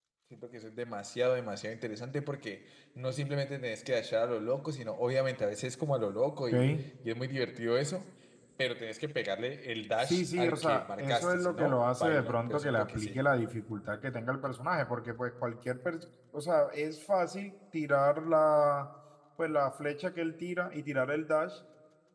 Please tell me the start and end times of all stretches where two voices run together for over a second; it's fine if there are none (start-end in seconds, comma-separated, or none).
10.0-13.2